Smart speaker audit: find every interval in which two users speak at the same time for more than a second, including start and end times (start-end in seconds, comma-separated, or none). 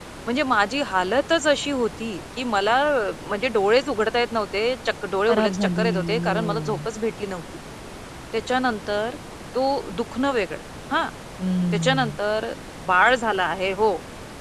5.3-6.9